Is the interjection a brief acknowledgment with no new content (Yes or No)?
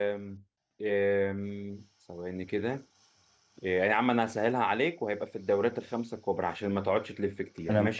No